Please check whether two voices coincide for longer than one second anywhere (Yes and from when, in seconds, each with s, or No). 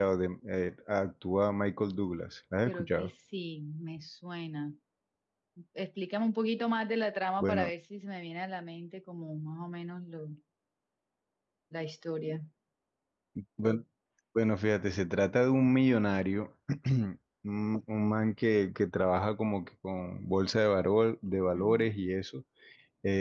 No